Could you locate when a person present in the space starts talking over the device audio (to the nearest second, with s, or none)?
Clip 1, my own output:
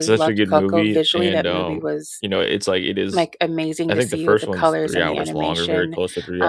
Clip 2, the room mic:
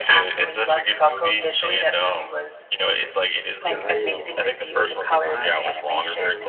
4 s